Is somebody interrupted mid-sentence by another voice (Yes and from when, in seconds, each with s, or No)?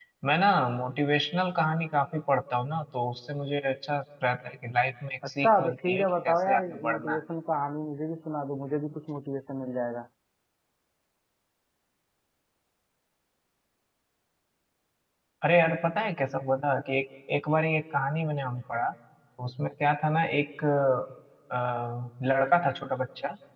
Yes, from 5.4 s